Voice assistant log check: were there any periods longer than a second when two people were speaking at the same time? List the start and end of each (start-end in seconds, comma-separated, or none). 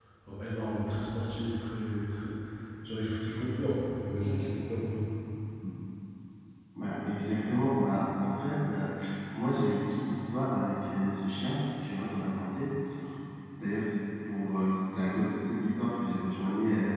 none